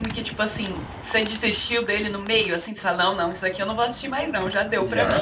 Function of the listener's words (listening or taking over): taking over